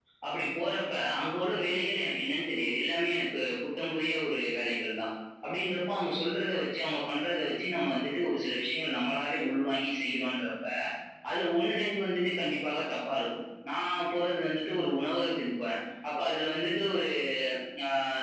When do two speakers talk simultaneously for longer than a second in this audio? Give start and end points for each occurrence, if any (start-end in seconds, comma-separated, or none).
none